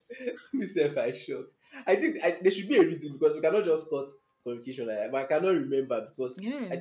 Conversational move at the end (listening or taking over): listening